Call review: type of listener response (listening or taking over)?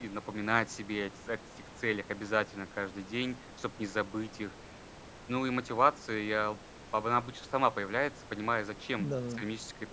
listening